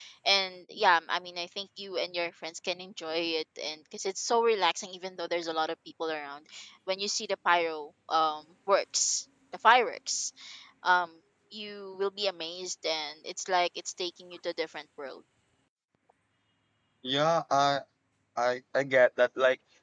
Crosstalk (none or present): none